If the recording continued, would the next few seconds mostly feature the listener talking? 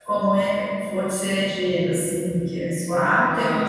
No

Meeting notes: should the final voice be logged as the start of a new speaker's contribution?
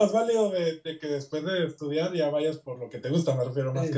Yes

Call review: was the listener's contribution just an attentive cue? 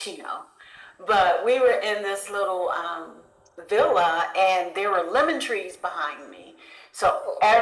Yes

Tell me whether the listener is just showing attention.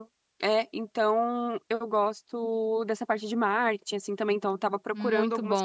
Yes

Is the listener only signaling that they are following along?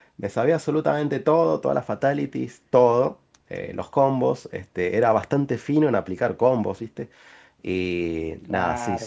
Yes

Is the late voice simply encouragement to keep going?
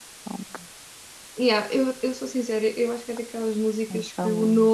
Yes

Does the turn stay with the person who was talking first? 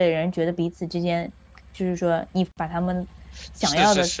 No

